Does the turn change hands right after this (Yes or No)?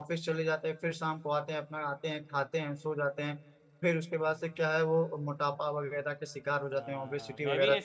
Yes